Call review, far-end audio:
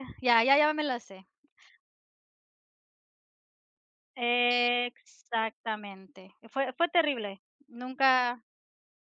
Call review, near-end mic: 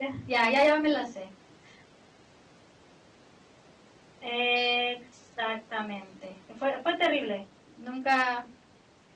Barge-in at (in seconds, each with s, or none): none